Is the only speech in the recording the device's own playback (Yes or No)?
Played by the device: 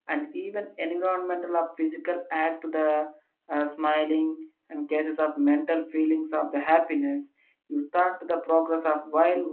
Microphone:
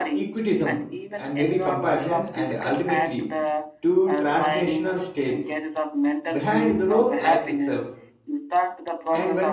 No